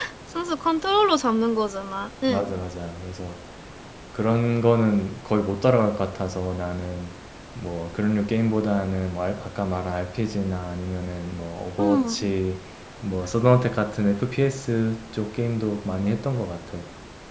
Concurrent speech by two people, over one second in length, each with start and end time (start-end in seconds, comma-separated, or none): none